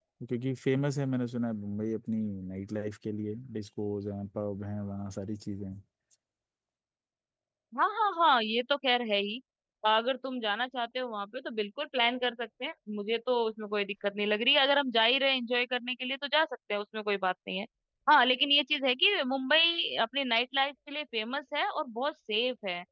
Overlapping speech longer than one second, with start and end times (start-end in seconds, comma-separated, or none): none